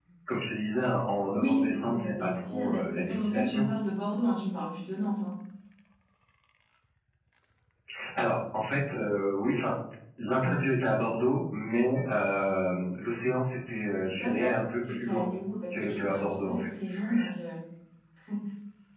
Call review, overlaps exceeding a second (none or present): present